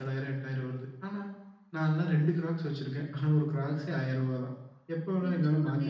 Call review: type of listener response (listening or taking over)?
taking over